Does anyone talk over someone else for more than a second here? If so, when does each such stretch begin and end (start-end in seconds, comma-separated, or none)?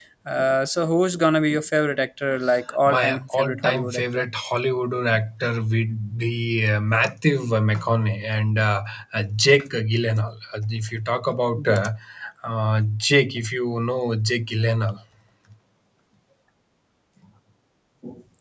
2.9-4.2